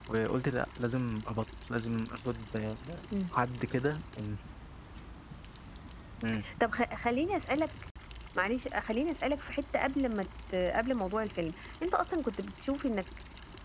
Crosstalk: none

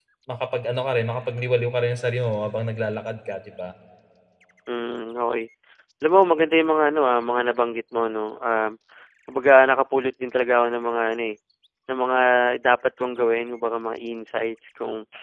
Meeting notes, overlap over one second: none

